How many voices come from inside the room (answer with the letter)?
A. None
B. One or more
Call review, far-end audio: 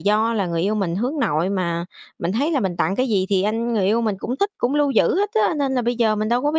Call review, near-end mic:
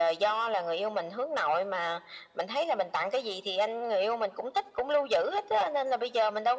A